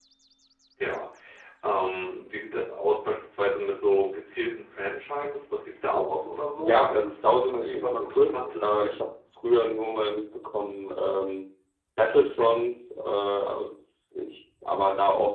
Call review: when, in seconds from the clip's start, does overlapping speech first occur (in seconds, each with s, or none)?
6.6 s